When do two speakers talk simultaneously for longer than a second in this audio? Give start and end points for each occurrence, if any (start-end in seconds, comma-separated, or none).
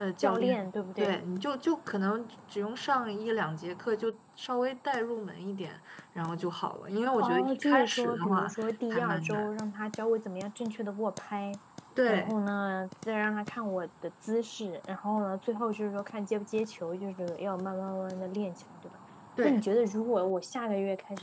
7.2-9.5